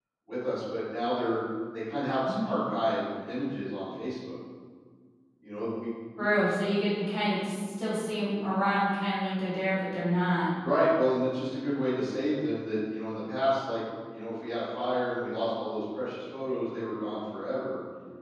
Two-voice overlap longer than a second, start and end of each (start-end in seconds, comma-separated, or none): none